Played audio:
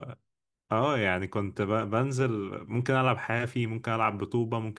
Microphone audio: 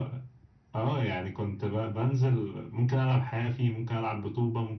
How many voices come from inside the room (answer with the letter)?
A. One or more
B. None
B